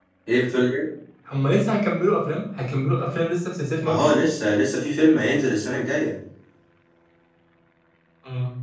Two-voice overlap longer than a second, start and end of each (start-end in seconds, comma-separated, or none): none